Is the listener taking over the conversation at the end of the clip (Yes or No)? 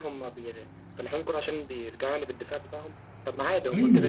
No